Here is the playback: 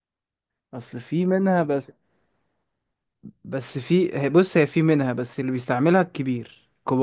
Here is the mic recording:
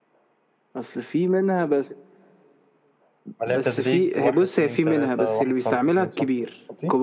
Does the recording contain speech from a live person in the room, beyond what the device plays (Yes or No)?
Yes